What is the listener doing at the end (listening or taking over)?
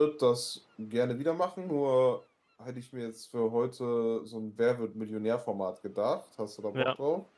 taking over